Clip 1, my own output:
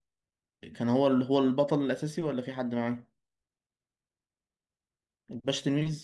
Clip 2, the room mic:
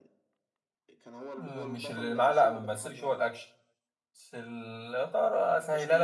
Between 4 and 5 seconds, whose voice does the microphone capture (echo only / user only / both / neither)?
user only